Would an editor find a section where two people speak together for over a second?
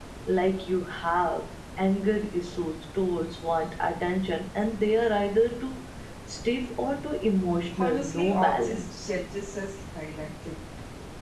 Yes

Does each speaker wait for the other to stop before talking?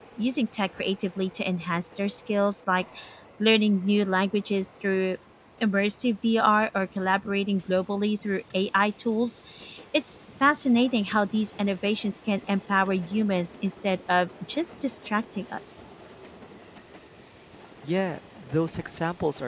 Yes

